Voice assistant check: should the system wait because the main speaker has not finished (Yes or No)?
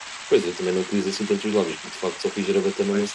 Yes